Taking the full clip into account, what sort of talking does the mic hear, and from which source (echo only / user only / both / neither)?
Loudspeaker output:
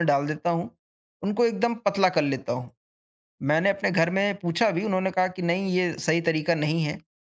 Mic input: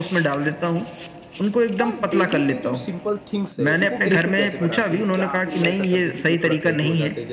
both